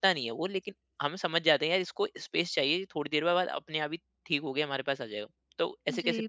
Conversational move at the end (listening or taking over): taking over